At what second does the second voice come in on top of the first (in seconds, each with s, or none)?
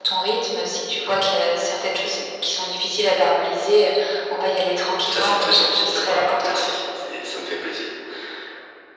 5.1 s